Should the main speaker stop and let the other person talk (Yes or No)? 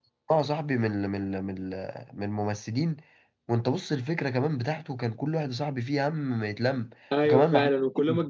Yes